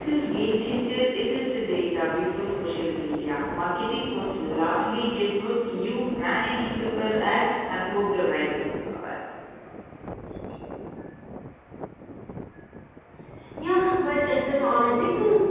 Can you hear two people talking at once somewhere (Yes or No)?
No